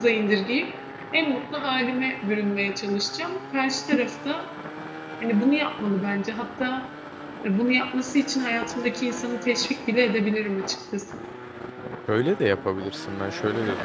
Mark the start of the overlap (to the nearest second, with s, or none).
none